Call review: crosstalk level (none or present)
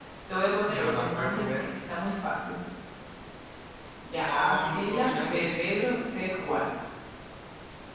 present